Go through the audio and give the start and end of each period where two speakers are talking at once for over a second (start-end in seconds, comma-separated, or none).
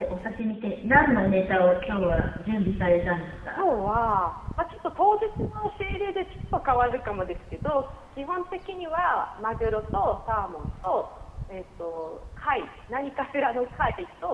none